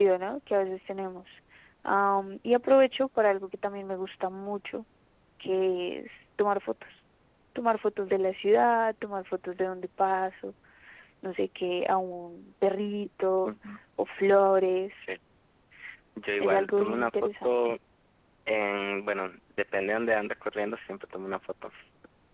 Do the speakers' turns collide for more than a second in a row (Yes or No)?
Yes